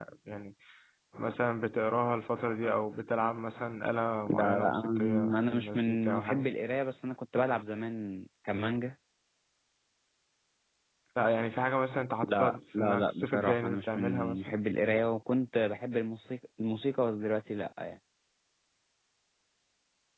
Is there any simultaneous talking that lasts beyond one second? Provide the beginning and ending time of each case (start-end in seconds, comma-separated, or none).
4.3-6.5, 12.3-14.5